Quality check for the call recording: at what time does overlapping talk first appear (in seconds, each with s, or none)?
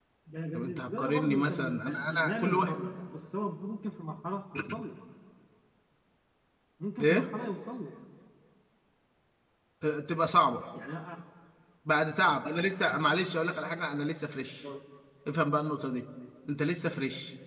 0.5 s